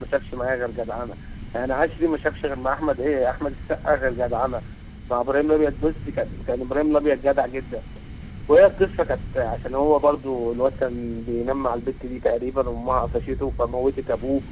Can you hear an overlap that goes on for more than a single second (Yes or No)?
No